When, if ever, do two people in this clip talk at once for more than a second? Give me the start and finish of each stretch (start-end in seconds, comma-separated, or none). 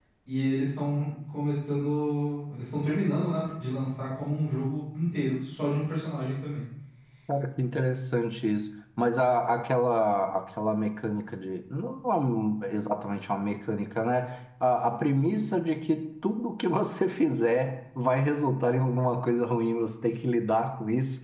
none